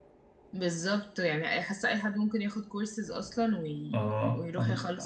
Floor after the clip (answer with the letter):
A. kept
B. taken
B